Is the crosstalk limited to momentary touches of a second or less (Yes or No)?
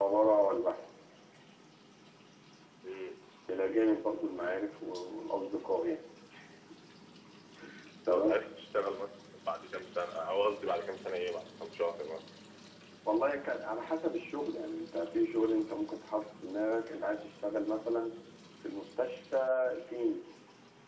Yes